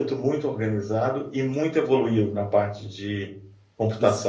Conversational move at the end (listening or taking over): taking over